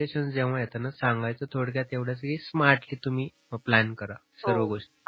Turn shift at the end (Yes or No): Yes